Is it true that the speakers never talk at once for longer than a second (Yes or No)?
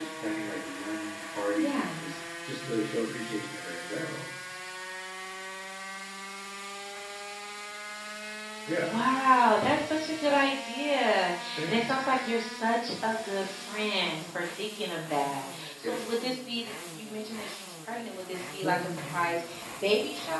Yes